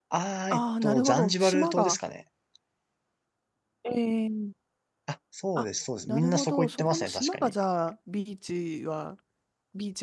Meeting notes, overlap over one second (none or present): present